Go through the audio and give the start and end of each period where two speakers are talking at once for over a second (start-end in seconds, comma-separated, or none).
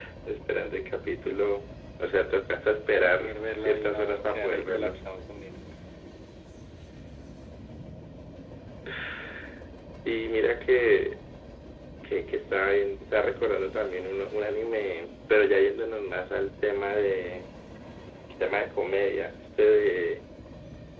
3.0-5.0